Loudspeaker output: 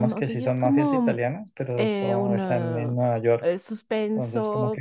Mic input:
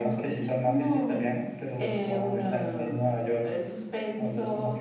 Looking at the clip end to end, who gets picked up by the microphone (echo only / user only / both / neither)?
echo only